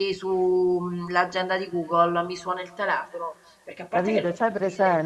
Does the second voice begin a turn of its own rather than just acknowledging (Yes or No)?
Yes